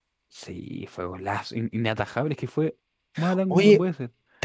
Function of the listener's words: taking over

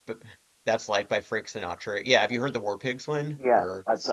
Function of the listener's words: taking over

